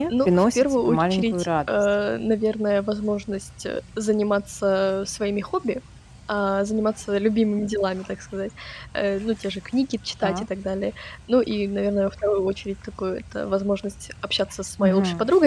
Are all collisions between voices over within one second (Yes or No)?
No